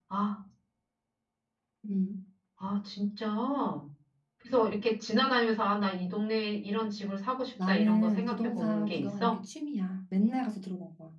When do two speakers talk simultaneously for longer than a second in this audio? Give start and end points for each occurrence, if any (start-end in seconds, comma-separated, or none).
7.6-9.4